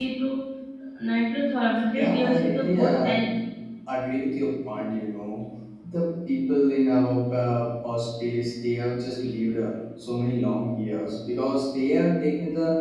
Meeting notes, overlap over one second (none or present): present